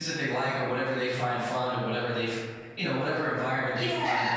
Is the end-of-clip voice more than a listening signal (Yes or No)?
No